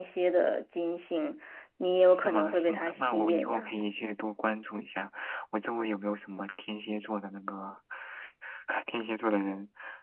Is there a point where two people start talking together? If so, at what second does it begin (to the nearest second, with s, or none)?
2 s